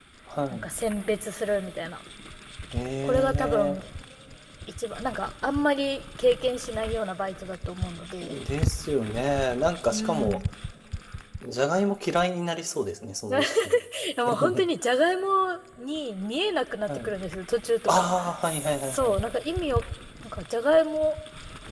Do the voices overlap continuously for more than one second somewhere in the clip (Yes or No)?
Yes